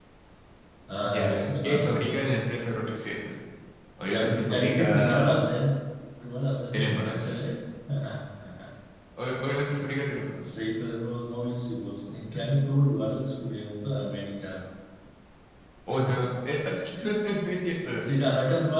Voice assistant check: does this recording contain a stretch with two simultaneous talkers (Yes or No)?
Yes